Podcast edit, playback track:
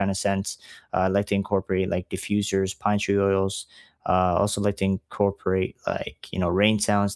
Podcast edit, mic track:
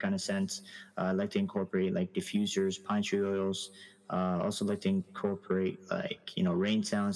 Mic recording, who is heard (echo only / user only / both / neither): echo only